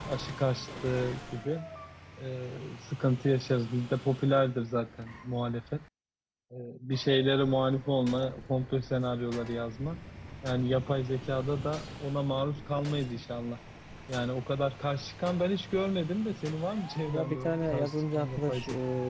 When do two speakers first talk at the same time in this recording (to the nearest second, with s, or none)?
17 s